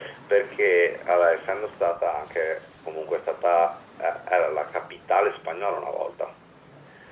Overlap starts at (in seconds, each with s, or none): none